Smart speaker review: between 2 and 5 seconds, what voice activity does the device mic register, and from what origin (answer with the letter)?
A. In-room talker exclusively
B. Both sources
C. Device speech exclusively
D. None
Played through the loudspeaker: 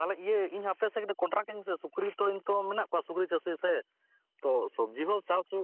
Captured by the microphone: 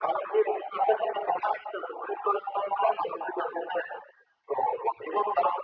C